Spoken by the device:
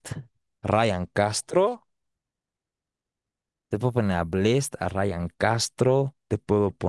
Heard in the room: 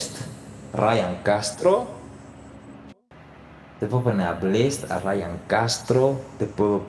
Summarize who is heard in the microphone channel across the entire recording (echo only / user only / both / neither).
echo only